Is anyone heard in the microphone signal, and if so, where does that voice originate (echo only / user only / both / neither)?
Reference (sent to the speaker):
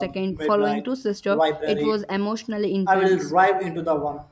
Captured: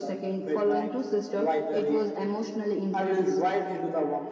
echo only